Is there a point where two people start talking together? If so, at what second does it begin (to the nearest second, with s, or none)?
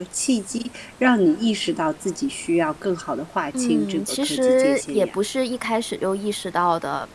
4 s